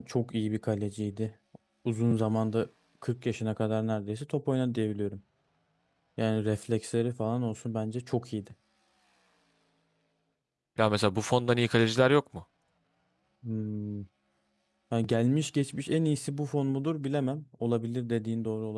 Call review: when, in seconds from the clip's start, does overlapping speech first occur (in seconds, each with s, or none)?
none